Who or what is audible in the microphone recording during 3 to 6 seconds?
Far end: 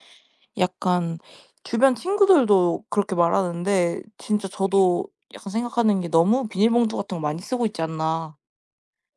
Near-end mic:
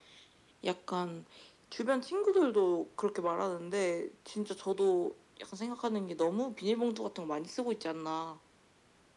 echo only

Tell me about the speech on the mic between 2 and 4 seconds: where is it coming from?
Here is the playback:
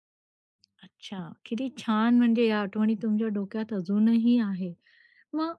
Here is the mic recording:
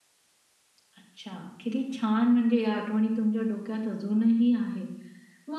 echo only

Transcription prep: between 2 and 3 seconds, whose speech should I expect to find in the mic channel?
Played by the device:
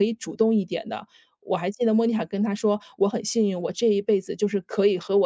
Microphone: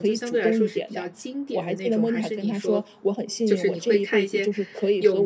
both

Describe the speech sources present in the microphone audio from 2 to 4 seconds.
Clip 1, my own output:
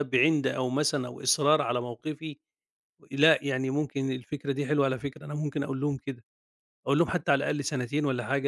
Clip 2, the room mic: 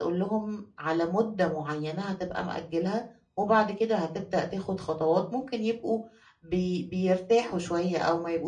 user only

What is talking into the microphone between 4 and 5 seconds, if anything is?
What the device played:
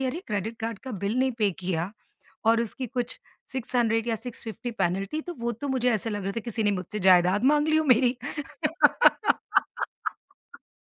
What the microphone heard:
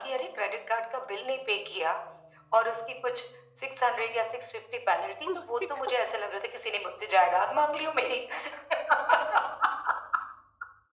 echo only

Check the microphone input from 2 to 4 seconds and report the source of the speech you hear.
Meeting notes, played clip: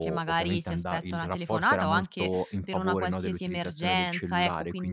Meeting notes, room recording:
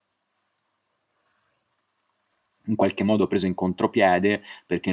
user only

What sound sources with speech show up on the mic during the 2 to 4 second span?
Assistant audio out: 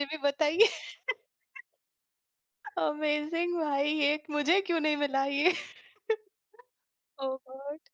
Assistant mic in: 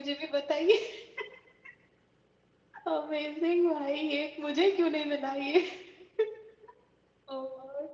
echo only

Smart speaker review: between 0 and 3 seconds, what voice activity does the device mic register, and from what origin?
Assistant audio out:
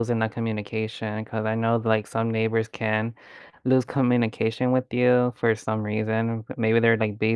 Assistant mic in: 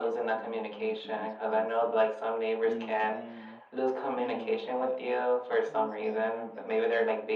both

